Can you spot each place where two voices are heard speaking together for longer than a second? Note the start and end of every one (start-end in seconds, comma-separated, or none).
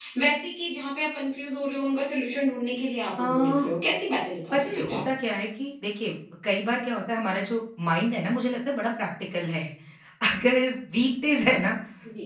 none